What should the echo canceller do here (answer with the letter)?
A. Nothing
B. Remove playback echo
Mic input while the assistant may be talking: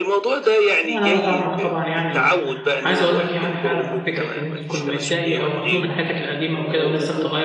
B